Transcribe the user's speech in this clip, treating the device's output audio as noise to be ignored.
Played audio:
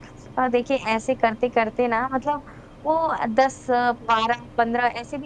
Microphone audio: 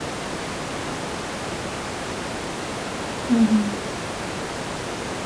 हुँ, हुँ।

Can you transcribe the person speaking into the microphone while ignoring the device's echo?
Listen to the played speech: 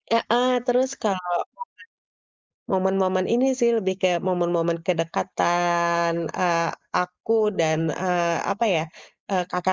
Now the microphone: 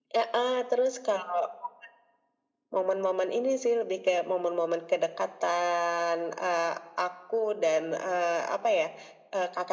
none

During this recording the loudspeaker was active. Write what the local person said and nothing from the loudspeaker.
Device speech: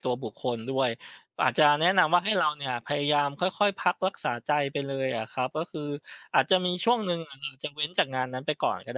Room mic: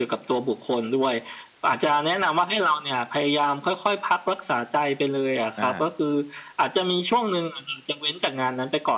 อา

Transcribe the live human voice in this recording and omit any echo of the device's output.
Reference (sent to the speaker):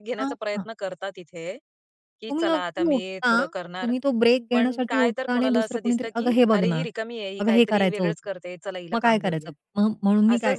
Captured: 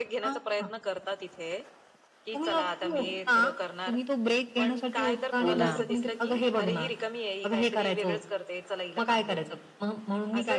हो ना.

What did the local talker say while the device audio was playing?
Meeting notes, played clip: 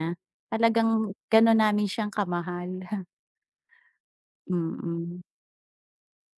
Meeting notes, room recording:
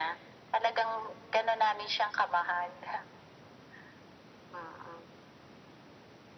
none

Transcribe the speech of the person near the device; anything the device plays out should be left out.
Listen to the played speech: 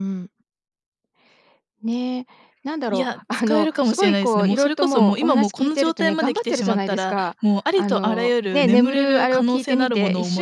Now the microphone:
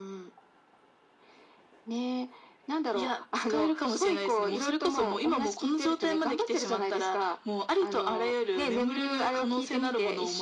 none

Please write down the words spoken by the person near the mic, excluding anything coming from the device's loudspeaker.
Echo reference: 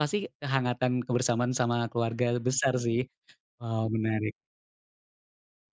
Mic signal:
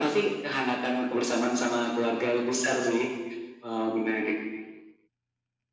none

